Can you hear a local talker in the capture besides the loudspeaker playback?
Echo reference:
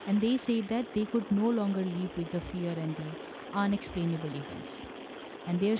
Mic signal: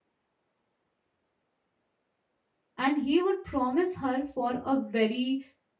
Yes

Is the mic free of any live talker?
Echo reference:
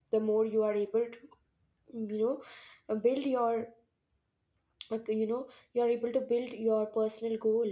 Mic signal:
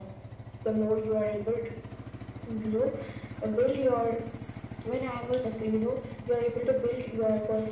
No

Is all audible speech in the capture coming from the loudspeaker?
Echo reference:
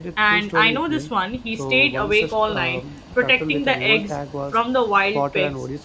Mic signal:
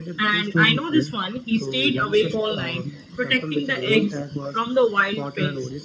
Yes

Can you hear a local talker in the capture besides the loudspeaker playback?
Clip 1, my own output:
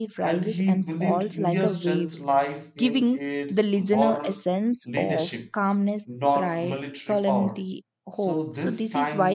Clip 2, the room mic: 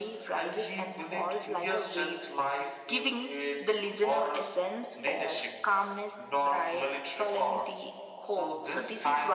No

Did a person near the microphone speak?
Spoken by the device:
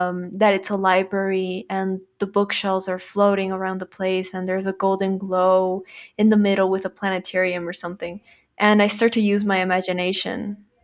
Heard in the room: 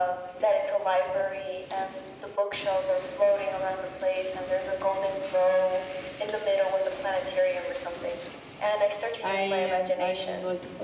Yes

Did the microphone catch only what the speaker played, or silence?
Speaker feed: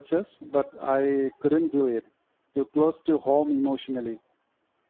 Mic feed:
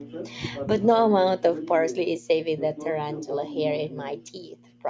No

